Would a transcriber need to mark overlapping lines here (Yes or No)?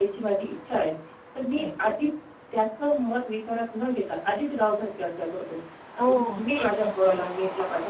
Yes